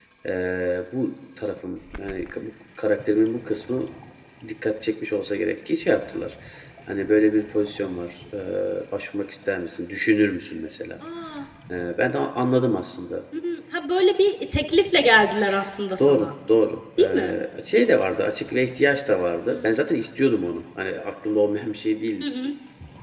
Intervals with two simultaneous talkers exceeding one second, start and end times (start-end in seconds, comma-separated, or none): none